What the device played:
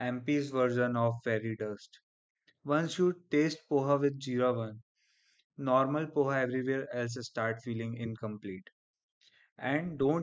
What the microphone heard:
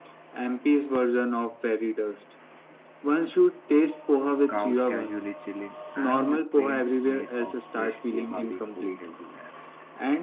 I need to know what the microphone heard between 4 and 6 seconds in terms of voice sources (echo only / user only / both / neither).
both